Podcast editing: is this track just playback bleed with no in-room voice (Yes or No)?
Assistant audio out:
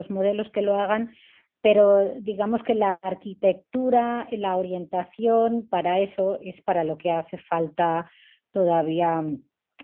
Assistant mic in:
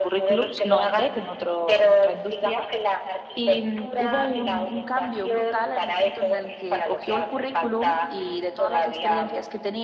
No